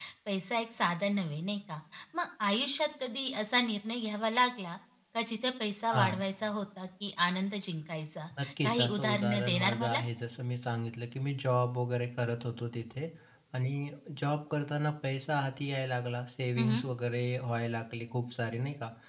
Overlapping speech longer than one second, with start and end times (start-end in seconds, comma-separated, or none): 8.6-10.0